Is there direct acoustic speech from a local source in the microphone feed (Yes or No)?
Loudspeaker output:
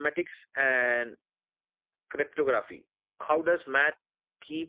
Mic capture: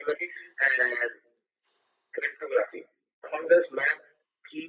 No